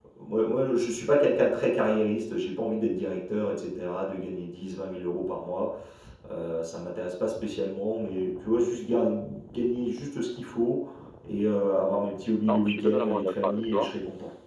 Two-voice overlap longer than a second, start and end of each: 12.5-14.0

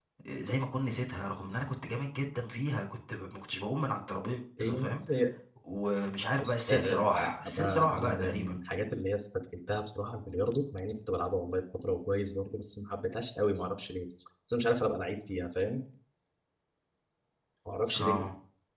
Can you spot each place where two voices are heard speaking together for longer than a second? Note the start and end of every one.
6.4-8.6

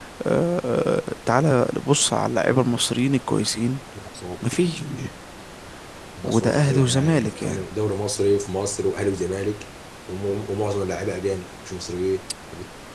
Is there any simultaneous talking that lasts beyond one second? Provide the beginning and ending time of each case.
6.2-7.6

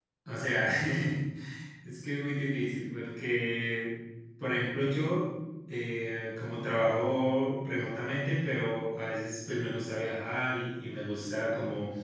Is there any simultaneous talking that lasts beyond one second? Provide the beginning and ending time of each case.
none

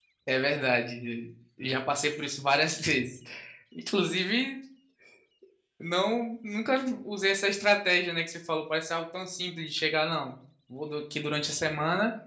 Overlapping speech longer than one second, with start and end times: none

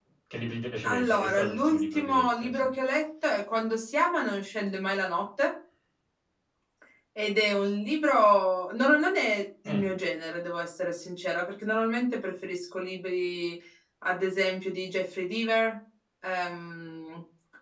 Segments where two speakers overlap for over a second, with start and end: 0.8-2.7

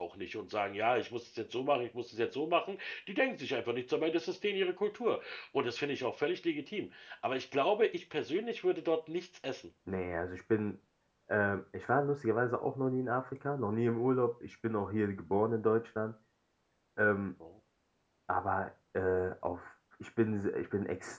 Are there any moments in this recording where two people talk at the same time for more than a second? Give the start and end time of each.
none

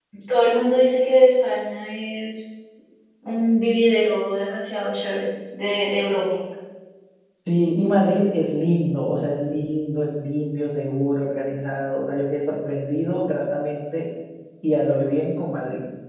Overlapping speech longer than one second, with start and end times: none

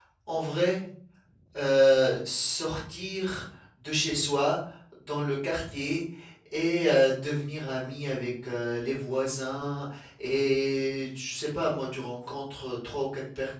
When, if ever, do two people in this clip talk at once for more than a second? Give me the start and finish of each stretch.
none

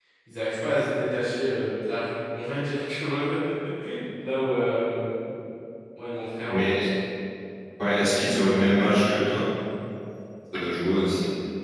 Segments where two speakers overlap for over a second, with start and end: none

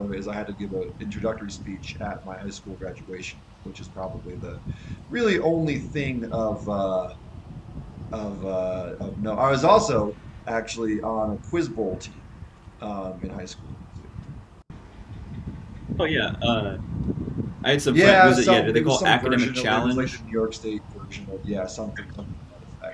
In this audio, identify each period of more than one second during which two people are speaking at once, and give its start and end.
17.9-20.2

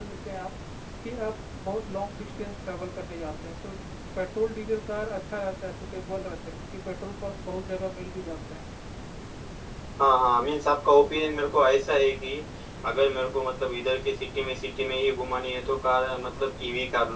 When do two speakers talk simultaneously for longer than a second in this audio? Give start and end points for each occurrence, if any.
none

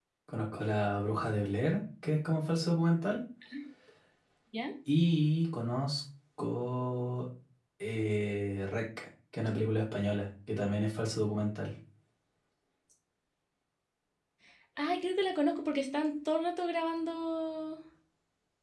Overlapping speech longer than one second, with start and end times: none

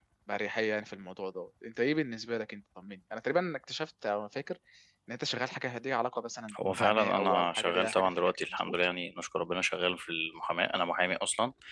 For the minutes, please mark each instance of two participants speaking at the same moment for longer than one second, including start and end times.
6.6-8.7

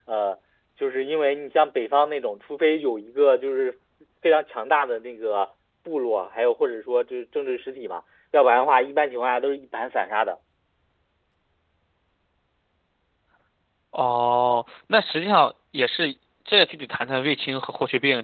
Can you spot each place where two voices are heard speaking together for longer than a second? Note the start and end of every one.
none

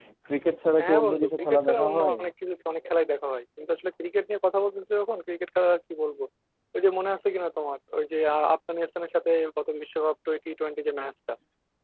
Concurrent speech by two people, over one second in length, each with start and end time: 0.8-2.2

